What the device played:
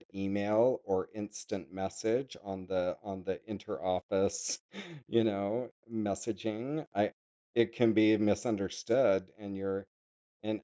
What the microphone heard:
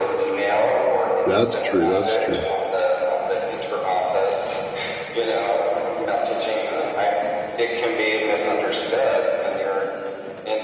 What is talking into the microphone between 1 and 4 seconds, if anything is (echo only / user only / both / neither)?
both